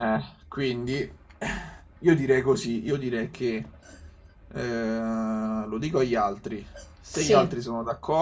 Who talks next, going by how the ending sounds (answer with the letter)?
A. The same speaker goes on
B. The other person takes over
A